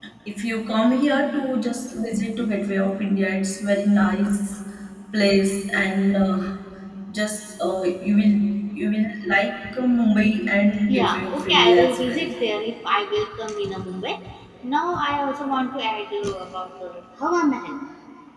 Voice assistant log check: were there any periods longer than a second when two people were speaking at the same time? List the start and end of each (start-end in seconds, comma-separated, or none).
10.9-12.2